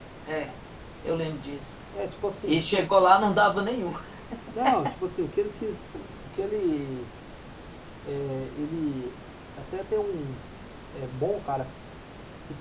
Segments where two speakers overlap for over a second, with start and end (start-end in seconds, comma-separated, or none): none